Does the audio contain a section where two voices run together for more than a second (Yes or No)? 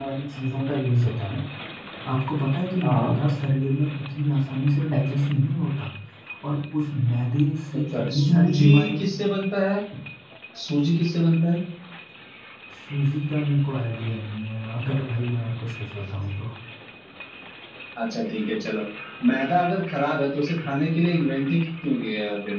Yes